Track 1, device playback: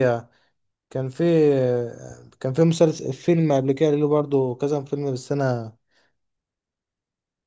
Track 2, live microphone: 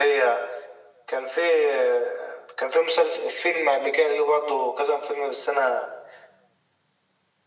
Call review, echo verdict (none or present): present